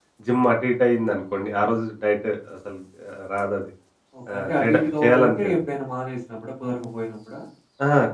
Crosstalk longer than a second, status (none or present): present